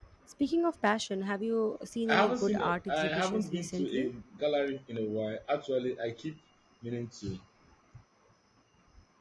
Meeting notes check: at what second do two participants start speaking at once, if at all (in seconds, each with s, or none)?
2.1 s